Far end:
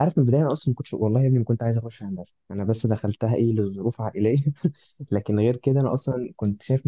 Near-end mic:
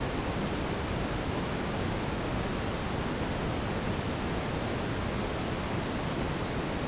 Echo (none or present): none